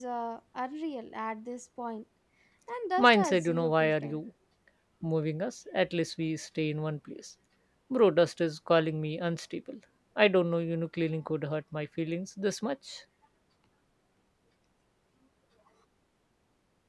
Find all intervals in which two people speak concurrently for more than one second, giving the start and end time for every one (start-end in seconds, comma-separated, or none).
3.0-4.2